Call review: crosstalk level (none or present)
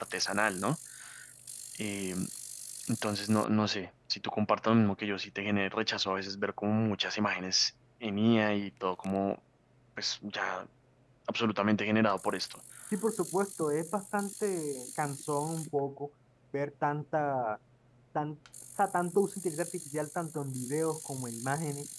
none